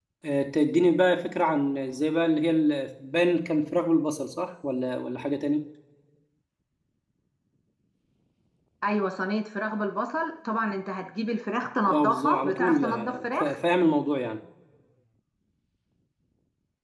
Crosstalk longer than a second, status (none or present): present